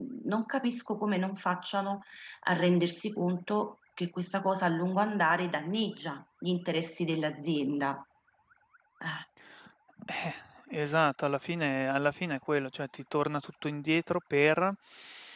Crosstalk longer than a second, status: none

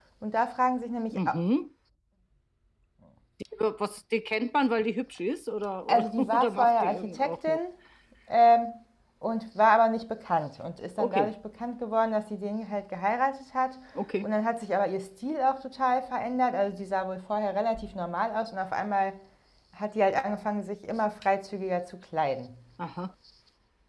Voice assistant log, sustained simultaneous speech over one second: present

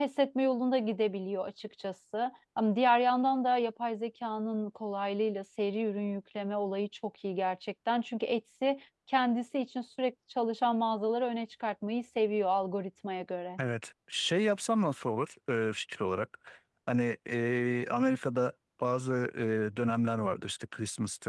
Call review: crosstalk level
none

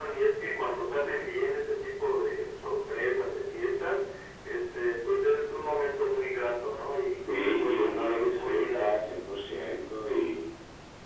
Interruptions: present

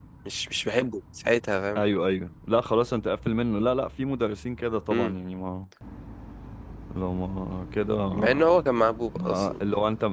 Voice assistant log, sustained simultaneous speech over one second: none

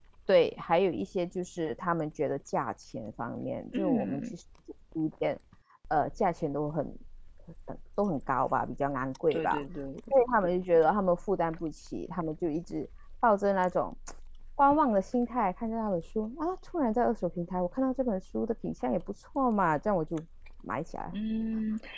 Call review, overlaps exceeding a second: none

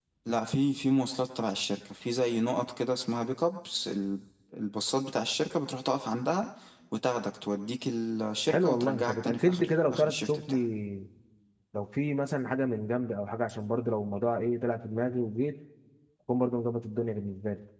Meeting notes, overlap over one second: present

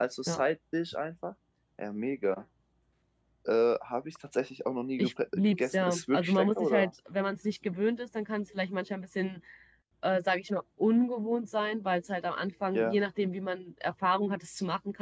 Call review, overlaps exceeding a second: present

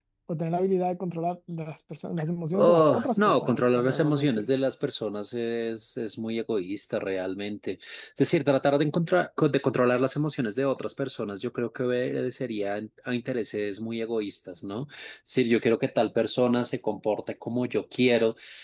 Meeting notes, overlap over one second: present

